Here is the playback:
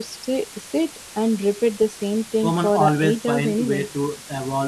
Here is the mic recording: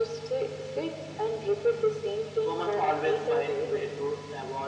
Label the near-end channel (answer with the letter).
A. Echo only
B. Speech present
A